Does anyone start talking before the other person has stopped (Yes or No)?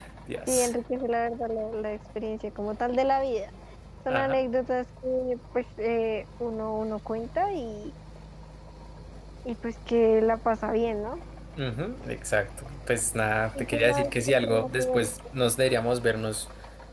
Yes